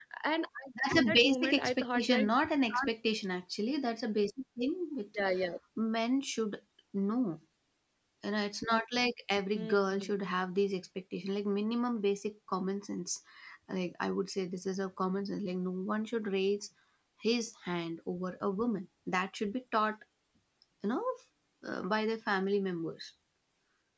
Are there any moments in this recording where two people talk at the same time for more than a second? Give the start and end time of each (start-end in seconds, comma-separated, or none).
0.9-2.3